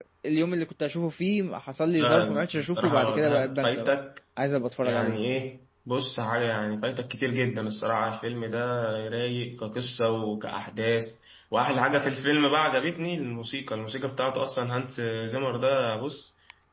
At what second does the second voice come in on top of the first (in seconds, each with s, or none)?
2.0 s